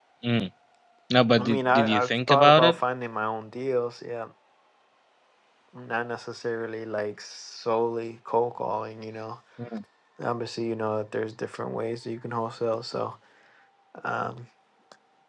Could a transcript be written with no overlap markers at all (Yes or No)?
No